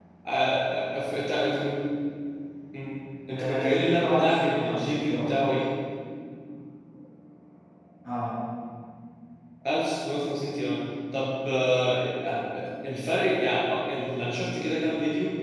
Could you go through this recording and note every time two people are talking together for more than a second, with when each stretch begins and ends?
3.3-5.3

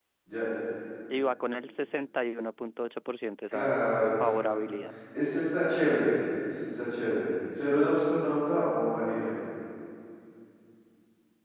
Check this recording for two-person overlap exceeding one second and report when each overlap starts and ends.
none

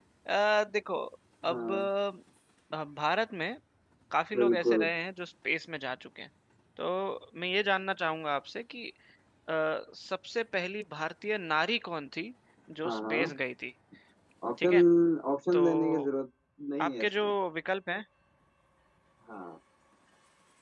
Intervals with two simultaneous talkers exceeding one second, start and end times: none

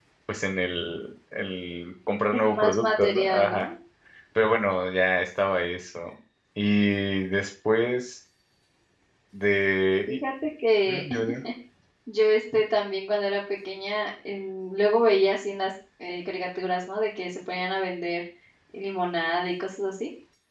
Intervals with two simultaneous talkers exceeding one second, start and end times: 2.3-3.7

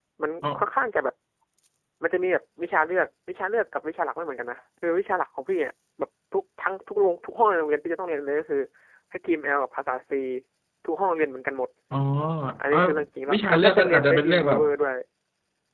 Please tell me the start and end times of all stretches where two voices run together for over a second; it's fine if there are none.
13.3-14.6

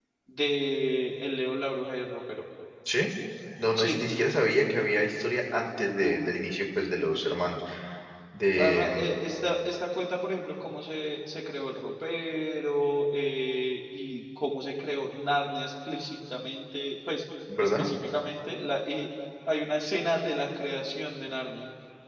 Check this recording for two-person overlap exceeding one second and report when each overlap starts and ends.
none

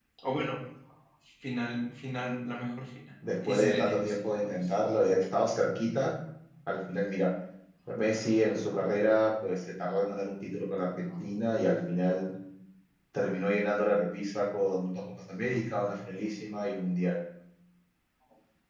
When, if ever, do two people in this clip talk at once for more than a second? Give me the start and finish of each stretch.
3.5-4.7

